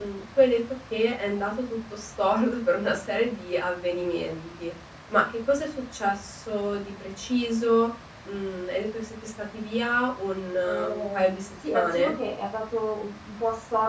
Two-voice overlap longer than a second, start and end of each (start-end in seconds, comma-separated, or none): 10.6-12.1